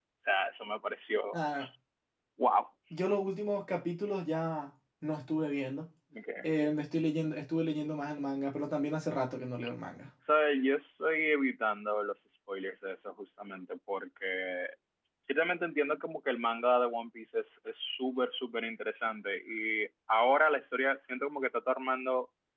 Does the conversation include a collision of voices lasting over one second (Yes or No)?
No